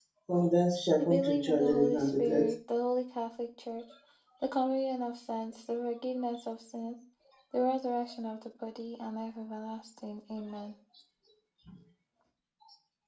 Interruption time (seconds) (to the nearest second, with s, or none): 1 s